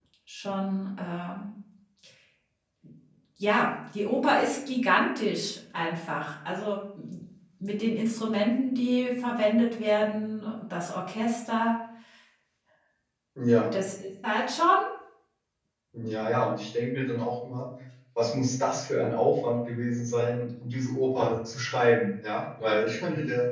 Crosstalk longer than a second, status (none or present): none